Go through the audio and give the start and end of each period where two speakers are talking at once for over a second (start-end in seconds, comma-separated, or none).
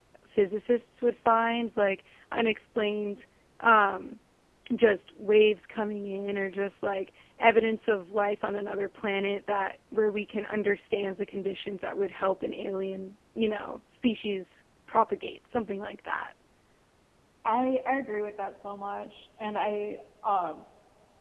none